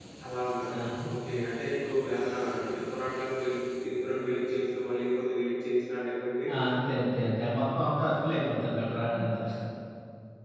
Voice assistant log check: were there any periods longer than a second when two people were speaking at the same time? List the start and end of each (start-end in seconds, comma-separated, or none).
none